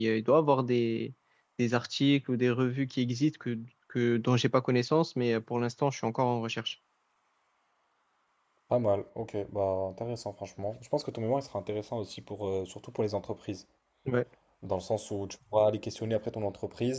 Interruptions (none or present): none